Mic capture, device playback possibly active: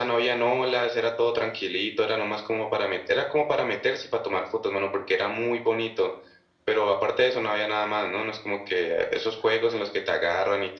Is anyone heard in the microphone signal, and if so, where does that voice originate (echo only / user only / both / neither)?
echo only